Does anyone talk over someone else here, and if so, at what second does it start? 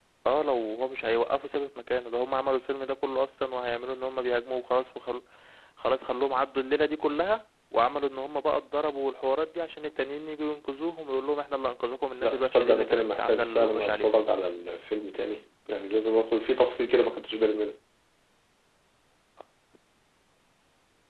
12.2 s

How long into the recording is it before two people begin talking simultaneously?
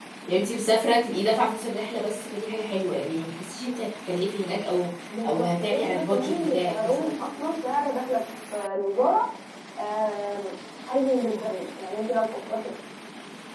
5.1 s

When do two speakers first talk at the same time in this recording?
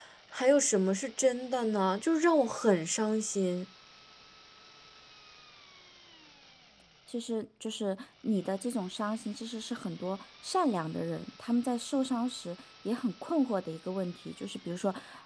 none

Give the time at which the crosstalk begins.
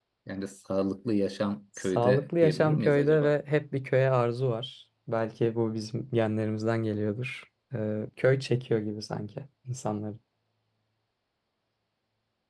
1.8 s

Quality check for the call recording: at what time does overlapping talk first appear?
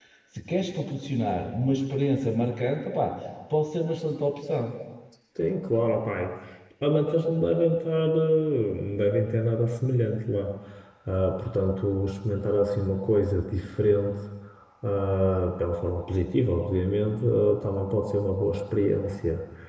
none

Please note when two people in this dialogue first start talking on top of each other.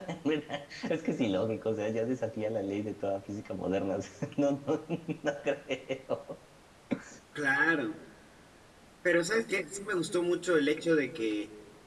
none

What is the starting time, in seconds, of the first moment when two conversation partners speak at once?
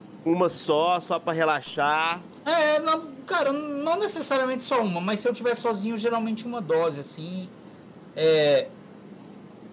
none

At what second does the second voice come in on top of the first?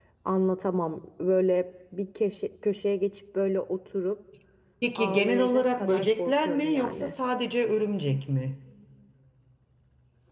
5.0 s

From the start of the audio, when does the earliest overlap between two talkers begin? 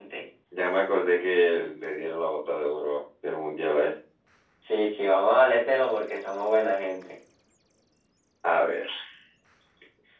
none

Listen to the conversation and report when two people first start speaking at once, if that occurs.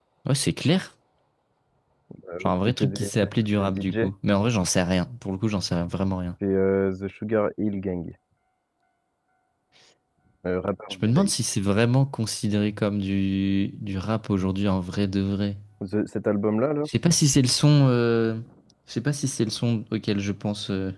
2.4 s

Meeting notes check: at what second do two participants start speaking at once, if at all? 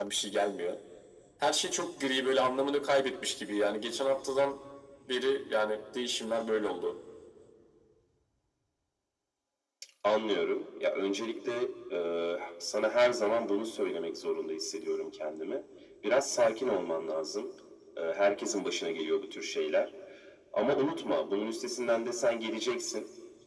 none

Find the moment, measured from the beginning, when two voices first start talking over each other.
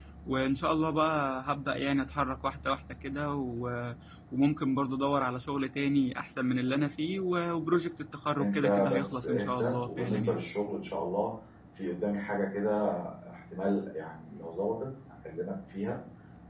8.4 s

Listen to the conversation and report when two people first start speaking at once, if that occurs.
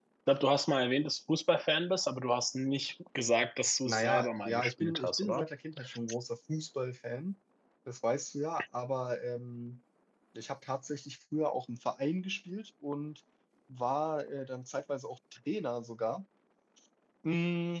3.8 s

